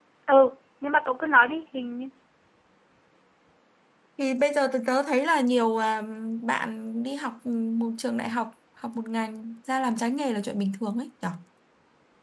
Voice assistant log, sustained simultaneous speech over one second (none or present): none